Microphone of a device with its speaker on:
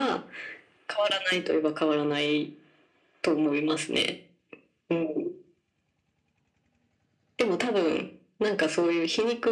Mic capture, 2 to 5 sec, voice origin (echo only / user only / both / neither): echo only